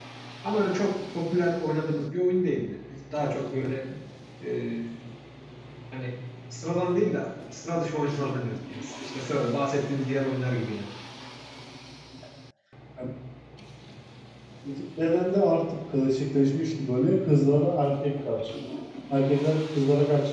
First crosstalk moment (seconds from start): none

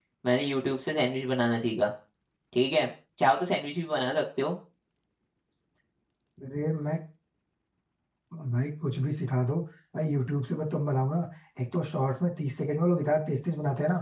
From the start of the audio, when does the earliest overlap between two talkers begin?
none

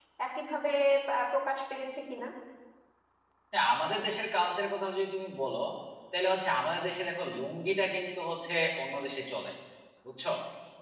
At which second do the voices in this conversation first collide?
none

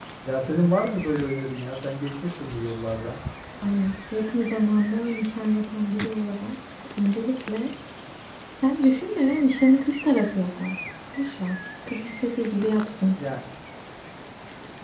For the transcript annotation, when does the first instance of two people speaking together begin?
none

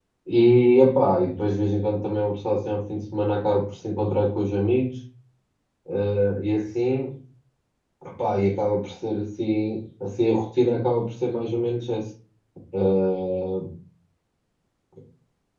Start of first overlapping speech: none

